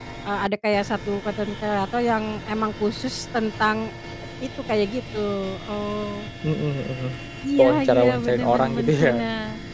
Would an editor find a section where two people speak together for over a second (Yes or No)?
Yes